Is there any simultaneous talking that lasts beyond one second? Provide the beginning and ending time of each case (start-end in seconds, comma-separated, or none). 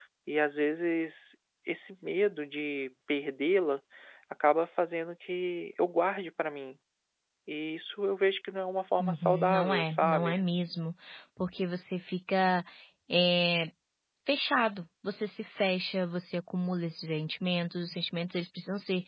9.0-10.4